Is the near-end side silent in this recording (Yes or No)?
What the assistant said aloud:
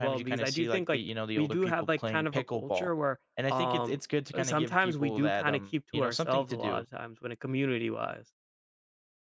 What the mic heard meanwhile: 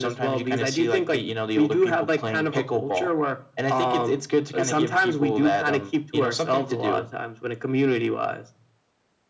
Yes